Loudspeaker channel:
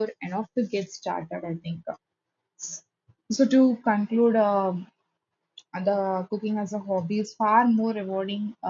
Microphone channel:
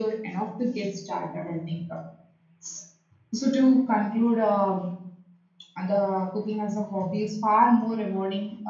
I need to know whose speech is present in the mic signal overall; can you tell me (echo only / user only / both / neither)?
echo only